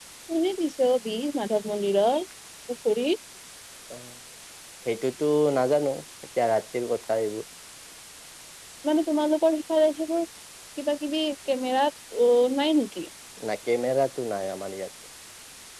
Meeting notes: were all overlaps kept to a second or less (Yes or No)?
Yes